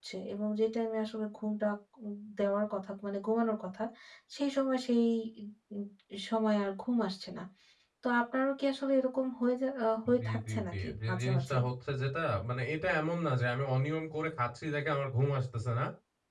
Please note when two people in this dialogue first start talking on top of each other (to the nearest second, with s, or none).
10 s